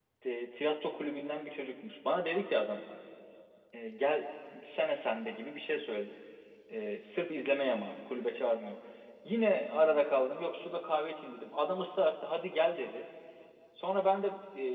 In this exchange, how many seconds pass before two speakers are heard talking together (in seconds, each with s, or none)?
none